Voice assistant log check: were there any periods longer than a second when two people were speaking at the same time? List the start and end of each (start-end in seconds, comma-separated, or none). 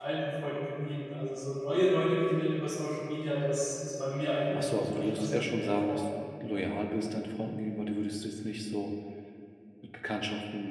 4.6-6.0